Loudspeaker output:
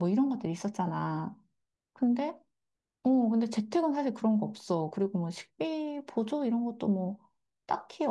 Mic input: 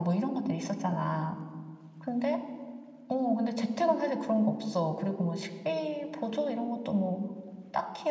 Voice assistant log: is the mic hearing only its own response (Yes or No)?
Yes